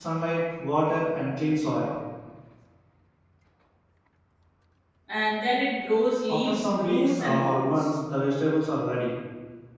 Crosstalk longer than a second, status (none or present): present